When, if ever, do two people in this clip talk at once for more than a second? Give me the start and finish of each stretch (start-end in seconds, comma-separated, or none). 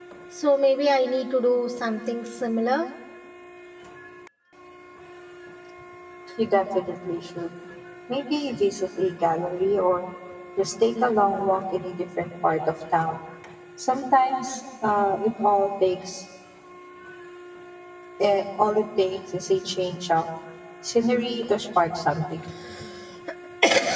none